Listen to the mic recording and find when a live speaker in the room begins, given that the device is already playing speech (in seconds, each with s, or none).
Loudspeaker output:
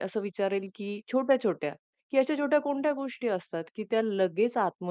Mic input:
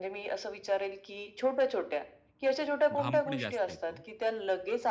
3.0 s